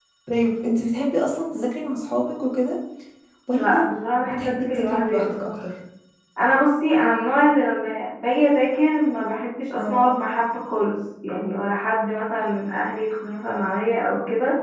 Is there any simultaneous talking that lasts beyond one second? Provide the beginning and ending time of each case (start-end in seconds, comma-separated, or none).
4.2-5.5